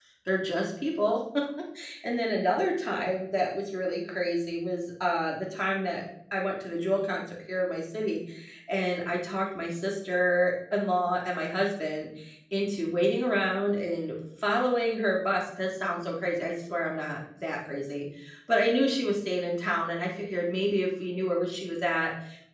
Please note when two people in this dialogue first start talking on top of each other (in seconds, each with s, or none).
none